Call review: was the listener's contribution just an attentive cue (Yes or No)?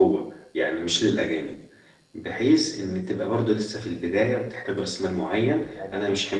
Yes